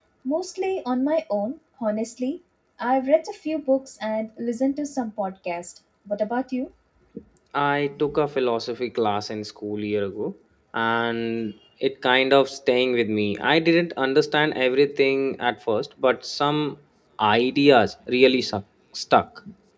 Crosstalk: none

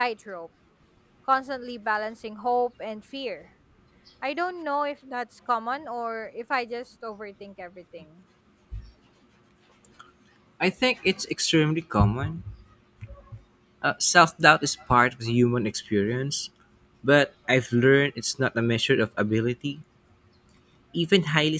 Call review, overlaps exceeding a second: none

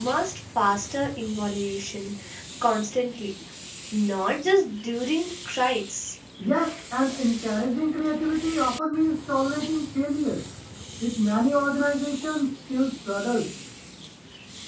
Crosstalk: none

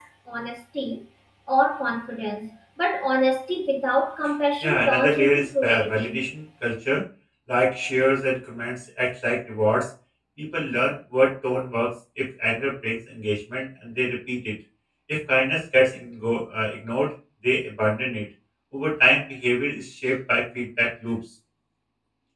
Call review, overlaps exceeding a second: present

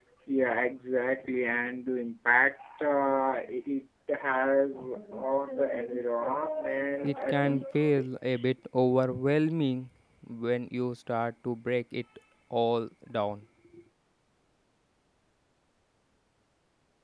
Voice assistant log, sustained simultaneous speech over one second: present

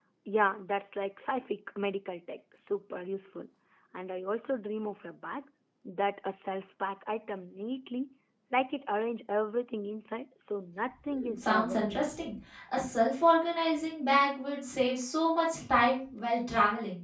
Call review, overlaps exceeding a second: present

